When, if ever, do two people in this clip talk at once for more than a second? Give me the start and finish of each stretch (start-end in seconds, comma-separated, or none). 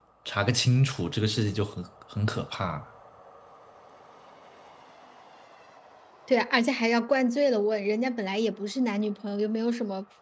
none